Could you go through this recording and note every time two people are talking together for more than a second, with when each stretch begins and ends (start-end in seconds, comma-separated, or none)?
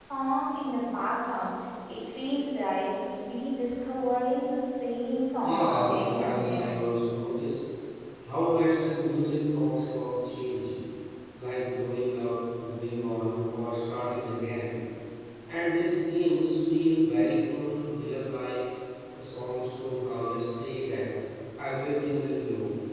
5.4-6.7